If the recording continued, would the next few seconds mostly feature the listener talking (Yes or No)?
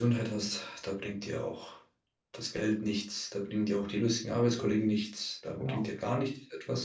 No